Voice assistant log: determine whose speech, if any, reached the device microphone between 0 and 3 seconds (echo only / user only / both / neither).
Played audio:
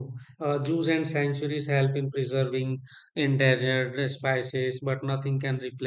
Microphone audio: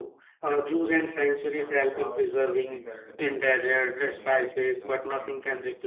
both